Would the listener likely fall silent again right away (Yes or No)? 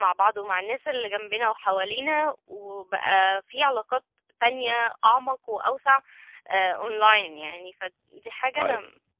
No